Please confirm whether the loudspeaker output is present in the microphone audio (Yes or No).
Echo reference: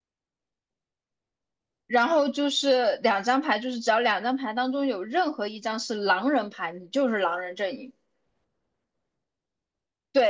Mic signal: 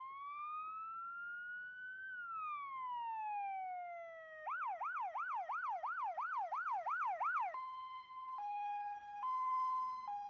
No